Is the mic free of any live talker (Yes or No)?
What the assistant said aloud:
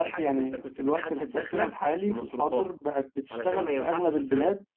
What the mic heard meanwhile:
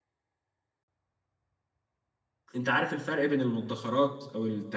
No